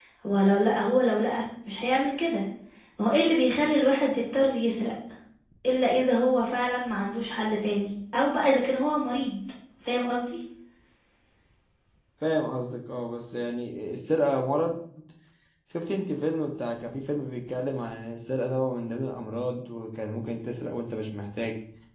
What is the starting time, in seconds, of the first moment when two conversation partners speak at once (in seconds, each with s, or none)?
none